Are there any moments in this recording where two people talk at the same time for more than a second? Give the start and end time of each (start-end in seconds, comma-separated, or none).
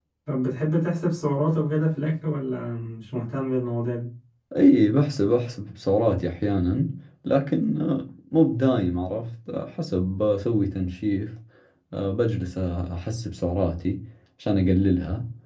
none